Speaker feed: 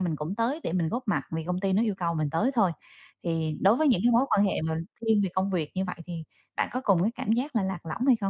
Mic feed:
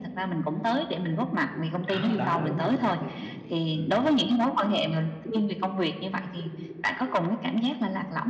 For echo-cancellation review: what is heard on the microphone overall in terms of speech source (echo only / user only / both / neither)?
both